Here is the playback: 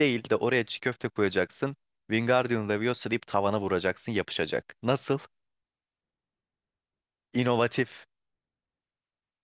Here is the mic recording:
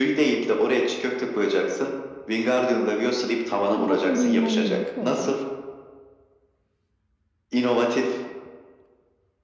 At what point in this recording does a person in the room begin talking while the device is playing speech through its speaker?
3.6 s

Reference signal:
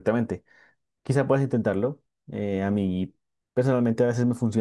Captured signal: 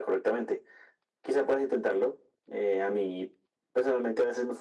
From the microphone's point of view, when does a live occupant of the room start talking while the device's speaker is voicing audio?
none

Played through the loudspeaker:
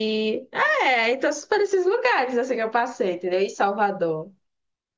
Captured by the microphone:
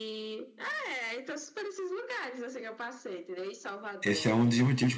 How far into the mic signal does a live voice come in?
4.0 s

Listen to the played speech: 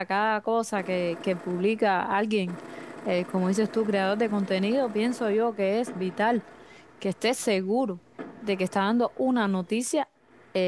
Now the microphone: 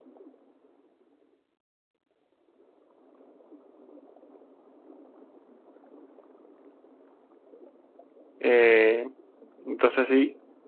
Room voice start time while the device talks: 8.4 s

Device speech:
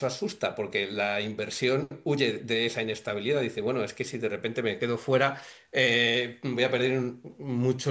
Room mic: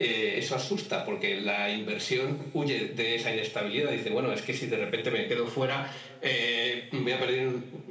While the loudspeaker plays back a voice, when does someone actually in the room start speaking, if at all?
none

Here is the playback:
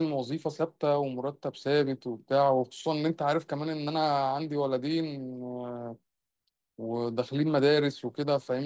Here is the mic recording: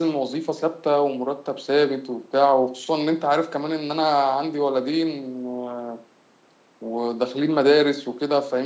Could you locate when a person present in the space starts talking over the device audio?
none

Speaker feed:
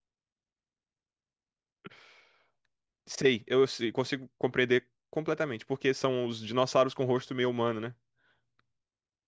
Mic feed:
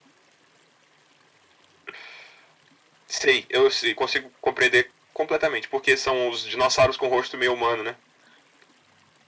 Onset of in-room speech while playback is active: none

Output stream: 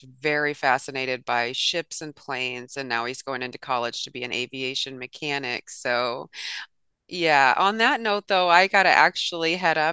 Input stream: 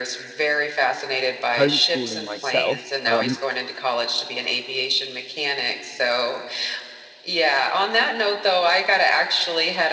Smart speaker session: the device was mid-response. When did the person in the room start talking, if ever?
1.6 s

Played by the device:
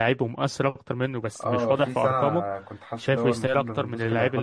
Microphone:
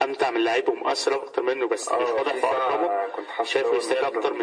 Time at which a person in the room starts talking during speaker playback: none

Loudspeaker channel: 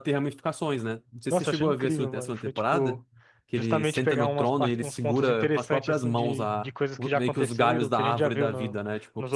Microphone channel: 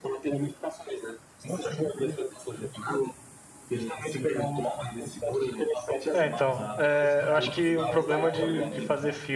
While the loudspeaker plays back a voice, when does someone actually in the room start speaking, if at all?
6.1 s

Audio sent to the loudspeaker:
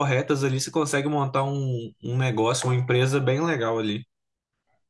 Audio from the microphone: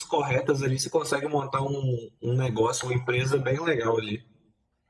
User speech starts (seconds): none

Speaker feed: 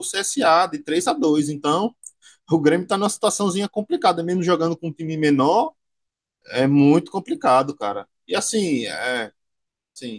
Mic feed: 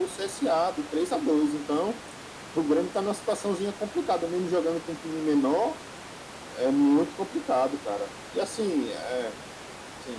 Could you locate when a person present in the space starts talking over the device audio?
none

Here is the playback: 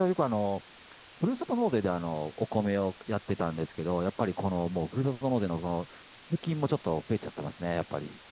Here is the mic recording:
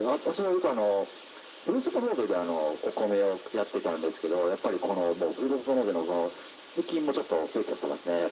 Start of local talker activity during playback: none

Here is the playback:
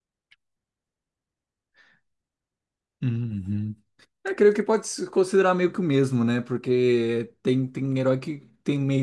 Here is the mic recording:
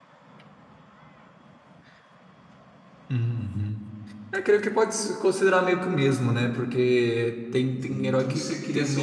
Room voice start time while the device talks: 7.7 s

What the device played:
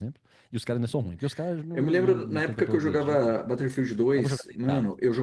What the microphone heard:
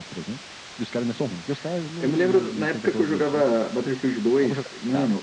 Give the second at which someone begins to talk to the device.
none

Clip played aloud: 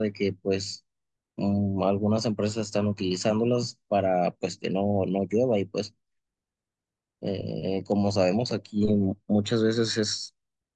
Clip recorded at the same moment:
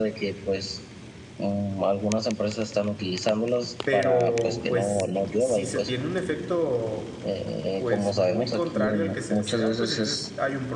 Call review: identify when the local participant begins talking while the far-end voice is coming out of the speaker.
3.8 s

